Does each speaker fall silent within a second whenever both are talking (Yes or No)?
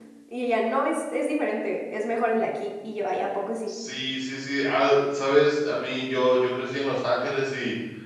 Yes